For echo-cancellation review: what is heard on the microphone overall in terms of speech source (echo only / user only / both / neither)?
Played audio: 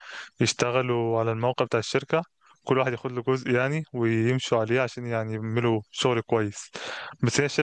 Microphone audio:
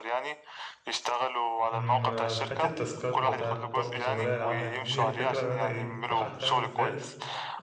both